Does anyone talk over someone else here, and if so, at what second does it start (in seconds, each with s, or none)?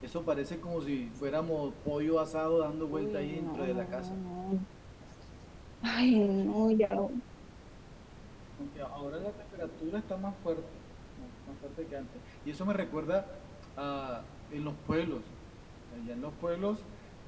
2.9 s